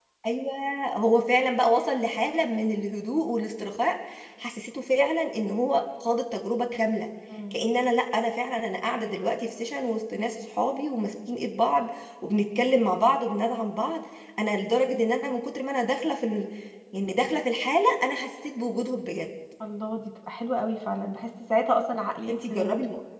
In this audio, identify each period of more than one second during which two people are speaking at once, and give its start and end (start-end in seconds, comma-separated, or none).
none